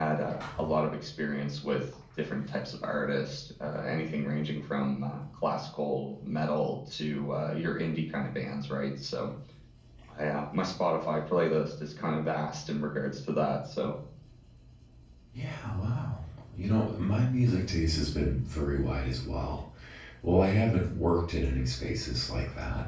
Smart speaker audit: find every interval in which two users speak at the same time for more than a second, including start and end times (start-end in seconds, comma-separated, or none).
none